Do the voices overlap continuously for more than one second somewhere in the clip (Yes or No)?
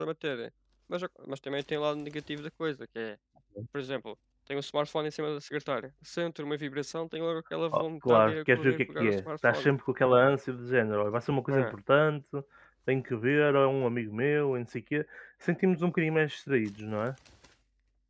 Yes